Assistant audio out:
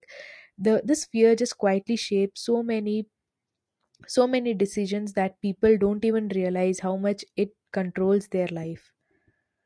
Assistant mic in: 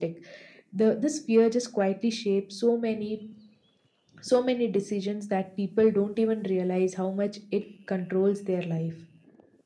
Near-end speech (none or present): none